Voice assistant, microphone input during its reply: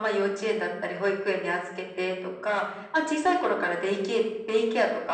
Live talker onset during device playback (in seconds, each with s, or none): none